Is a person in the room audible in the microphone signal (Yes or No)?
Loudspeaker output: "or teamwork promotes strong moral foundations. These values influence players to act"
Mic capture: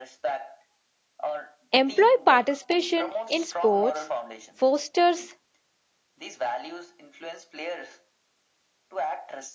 Yes